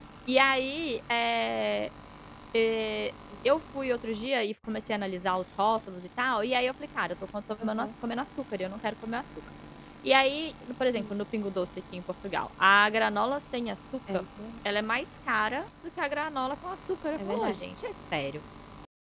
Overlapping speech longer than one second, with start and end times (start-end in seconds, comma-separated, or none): none